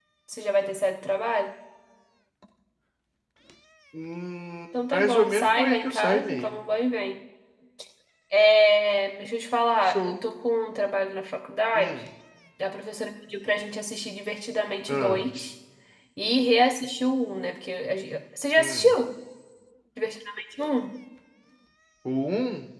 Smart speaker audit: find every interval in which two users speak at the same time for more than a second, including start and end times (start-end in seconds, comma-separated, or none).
4.9-6.5